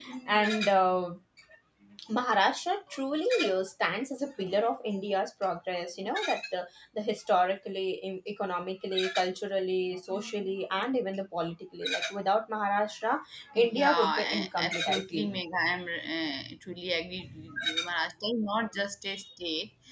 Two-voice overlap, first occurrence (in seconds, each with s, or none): 13.6 s